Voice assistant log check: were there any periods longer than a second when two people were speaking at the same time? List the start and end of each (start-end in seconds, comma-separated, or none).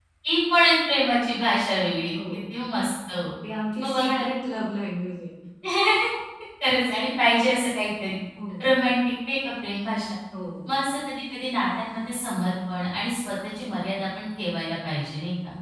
none